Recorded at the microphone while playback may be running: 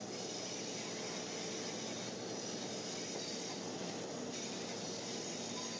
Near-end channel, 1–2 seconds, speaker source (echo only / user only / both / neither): neither